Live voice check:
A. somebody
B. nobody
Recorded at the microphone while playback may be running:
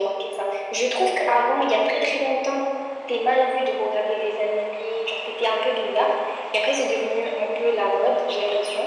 B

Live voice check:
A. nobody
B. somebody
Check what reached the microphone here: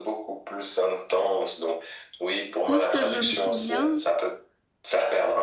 B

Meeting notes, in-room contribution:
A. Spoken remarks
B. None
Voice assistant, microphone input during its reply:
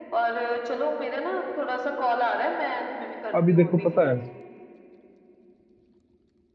A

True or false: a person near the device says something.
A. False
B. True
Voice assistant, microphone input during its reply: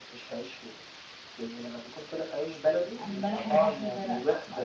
B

